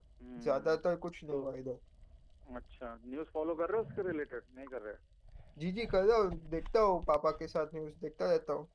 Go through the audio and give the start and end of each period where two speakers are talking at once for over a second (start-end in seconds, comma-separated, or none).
none